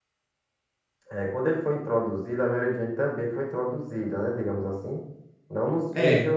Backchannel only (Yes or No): Yes